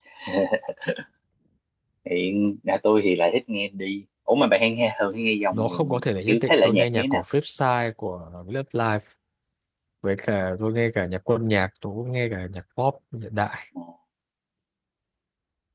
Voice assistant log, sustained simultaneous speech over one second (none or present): present